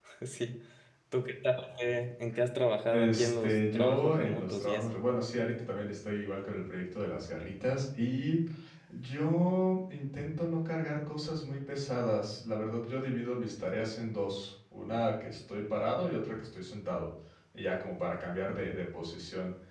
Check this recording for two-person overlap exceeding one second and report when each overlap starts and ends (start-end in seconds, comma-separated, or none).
2.9-4.9